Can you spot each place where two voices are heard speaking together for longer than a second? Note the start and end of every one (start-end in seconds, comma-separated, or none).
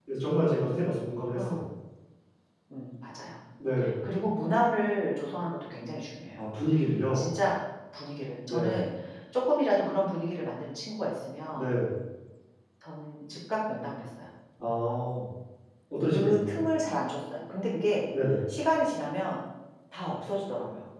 none